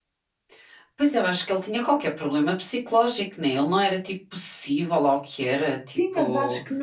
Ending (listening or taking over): taking over